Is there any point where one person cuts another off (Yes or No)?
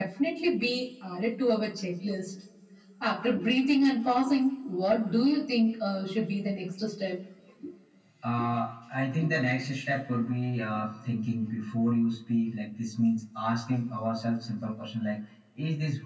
No